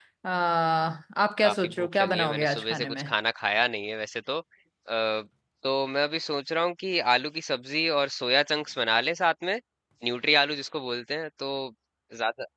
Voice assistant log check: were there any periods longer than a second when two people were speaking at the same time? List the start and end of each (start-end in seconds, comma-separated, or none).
1.4-3.0